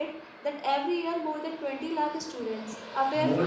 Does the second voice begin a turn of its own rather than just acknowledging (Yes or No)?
Yes